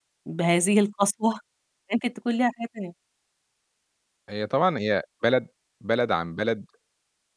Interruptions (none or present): none